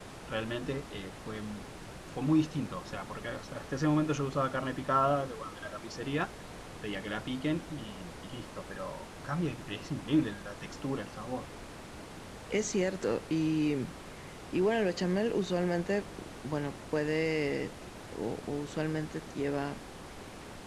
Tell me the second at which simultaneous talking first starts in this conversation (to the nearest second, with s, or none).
none